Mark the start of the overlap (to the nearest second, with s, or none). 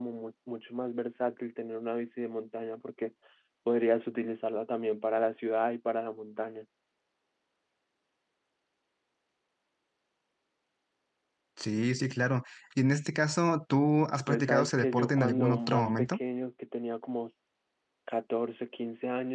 14 s